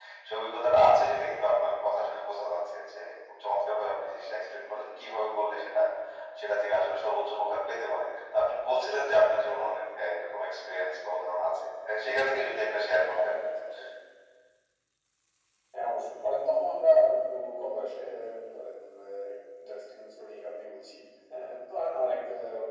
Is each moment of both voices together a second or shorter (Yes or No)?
Yes